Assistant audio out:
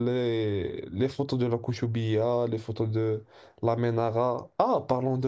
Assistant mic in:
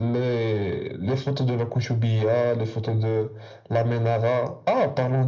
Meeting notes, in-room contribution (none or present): none